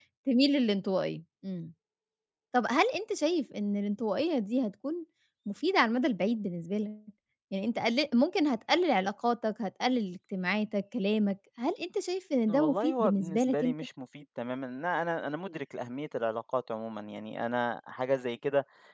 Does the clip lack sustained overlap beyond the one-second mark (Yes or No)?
No